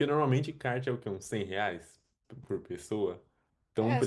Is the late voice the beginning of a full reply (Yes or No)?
No